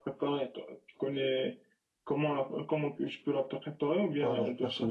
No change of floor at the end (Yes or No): No